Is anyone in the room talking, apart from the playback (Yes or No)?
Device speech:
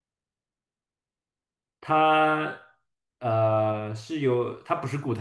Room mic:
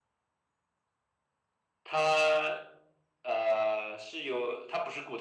No